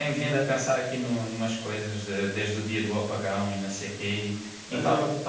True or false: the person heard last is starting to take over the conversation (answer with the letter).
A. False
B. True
A